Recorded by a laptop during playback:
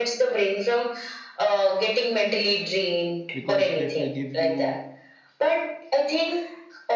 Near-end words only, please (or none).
because that will give you